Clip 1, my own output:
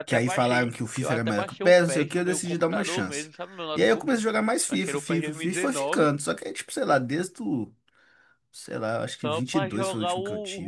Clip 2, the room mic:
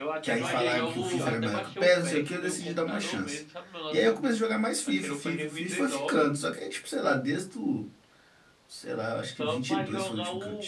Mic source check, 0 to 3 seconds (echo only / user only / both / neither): both